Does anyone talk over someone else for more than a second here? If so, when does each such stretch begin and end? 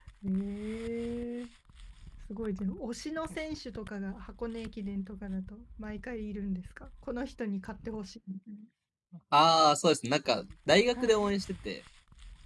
none

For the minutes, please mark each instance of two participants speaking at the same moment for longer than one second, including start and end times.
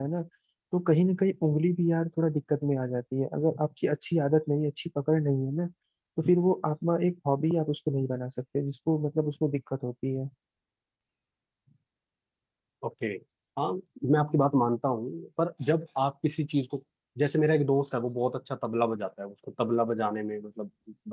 none

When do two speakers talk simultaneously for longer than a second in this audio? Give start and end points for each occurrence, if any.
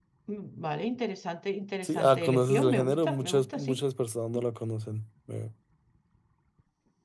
1.8-3.8

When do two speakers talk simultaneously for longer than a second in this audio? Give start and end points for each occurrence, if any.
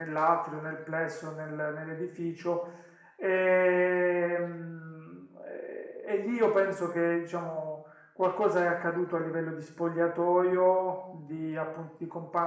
none

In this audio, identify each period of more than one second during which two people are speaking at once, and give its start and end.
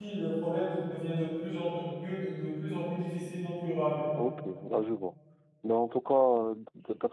none

